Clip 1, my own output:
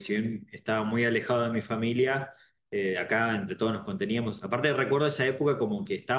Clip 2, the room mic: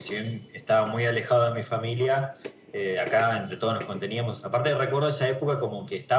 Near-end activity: none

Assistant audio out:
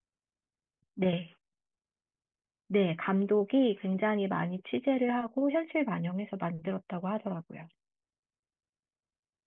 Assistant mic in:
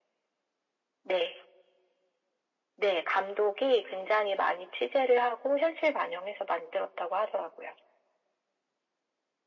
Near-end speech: none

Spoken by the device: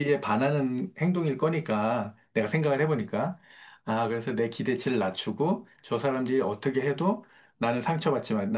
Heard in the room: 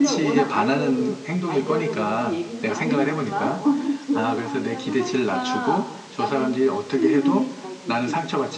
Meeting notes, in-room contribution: present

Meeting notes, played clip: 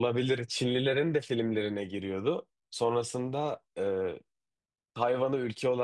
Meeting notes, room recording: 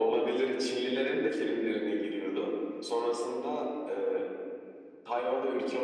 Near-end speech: none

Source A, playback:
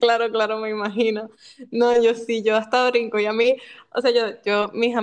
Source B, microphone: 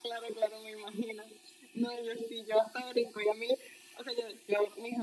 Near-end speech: none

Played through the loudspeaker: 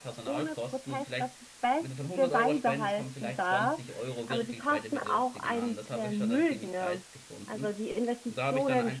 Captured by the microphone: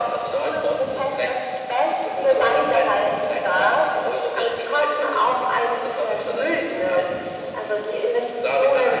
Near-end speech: none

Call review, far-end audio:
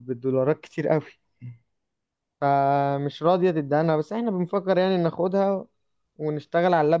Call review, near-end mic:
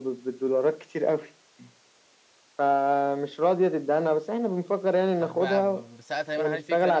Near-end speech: present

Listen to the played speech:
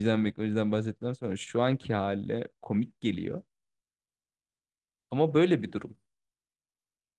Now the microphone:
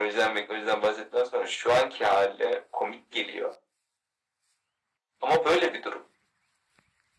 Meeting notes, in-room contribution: none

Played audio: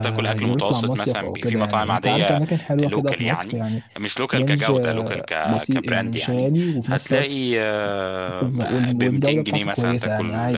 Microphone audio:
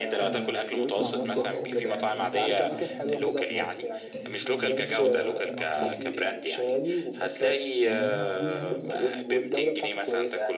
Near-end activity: present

